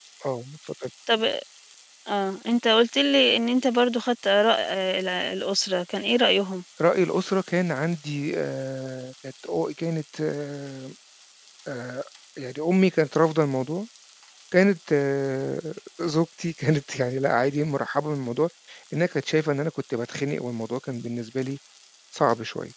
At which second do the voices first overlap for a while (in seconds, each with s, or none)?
none